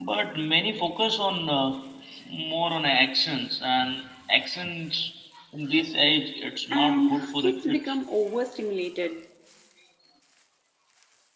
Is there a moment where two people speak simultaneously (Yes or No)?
Yes